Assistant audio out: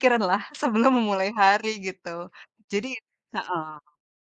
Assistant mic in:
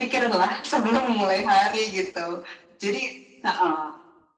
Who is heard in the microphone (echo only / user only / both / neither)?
echo only